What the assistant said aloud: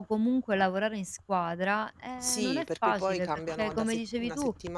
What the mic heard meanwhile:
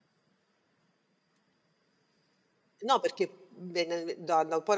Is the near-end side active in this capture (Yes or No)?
Yes